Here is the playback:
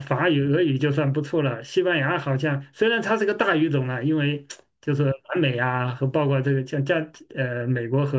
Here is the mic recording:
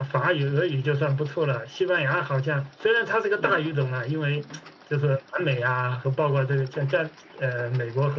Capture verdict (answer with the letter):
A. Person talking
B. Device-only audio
A